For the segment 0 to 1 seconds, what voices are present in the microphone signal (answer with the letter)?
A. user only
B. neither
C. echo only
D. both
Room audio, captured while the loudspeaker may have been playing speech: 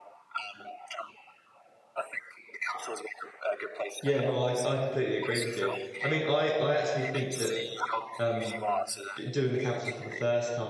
C